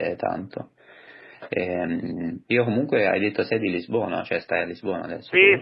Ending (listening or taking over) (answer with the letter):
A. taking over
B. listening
A